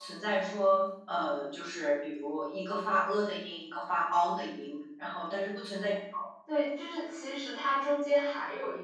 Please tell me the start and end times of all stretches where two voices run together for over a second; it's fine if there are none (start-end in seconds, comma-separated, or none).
none